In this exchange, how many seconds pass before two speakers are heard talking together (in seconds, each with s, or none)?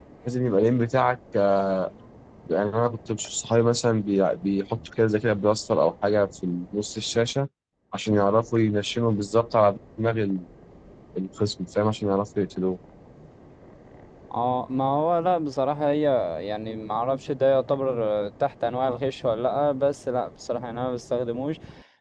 none